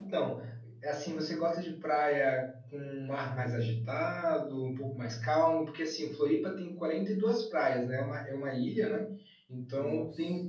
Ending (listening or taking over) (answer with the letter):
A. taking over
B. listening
B